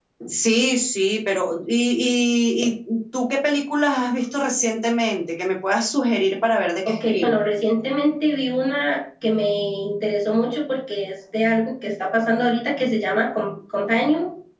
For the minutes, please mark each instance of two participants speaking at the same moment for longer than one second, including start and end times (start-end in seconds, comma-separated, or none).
none